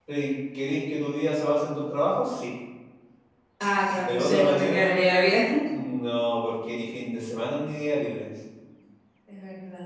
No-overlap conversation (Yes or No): No